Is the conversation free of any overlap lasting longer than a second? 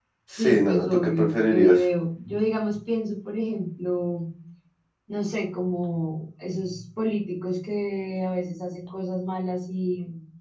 No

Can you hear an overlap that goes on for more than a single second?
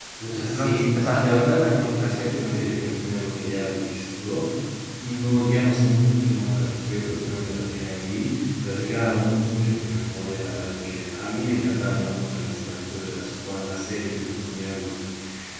Yes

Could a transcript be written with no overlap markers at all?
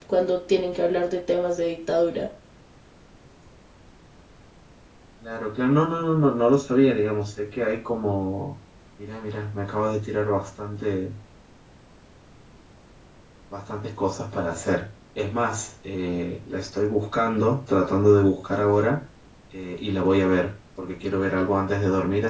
Yes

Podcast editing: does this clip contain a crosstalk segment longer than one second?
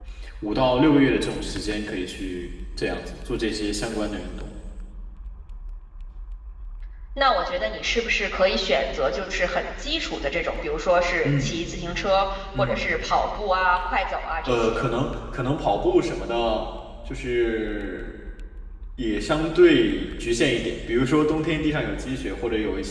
No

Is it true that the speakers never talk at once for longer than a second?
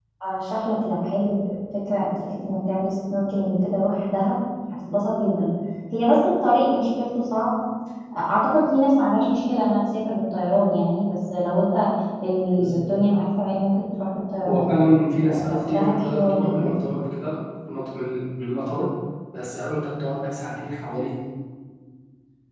No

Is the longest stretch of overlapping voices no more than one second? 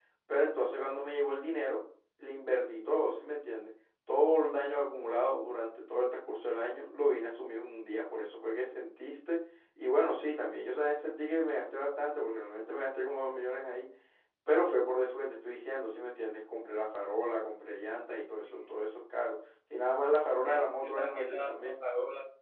No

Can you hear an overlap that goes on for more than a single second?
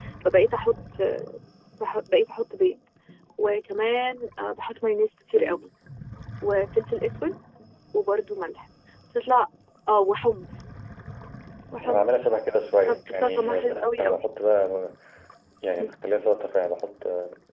Yes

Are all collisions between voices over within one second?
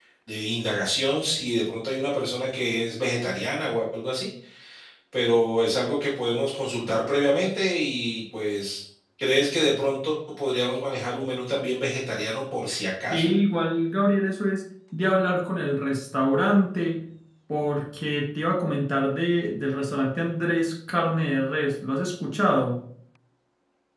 Yes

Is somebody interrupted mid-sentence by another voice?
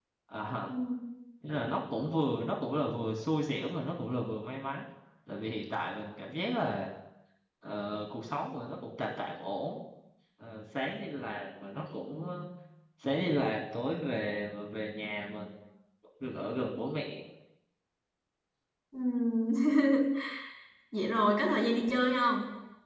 No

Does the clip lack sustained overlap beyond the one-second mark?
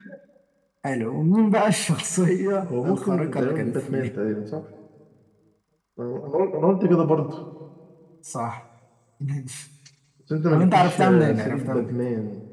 No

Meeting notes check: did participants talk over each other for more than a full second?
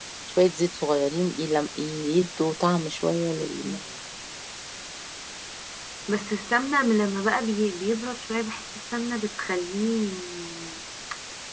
No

